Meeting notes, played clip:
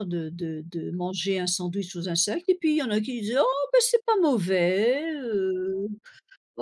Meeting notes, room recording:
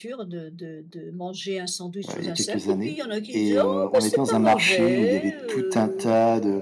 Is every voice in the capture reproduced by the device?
No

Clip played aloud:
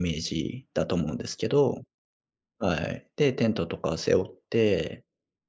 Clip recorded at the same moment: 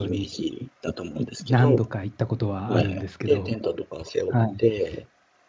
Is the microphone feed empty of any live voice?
No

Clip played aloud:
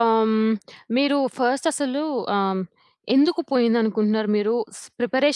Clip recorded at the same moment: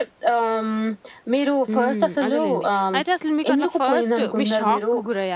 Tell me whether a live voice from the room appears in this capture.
Yes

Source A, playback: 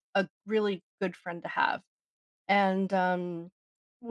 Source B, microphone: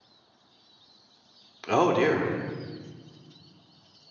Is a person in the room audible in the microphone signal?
Yes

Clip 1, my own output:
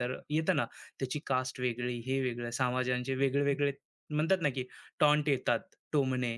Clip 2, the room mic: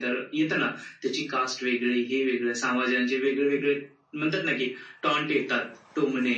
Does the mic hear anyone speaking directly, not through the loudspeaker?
No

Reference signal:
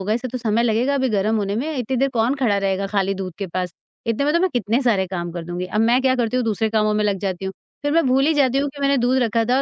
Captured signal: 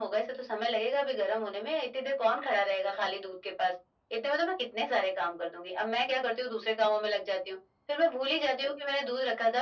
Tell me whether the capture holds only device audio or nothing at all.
Yes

